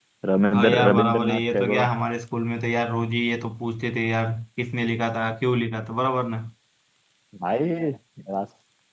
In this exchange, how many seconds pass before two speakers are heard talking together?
1 s

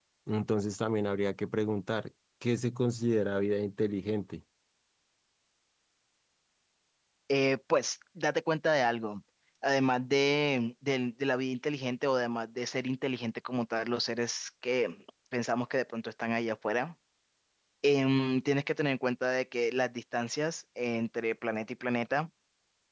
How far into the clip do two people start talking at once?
none

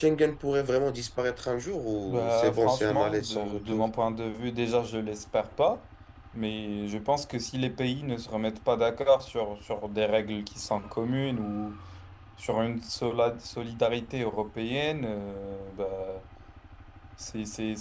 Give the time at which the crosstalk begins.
2 s

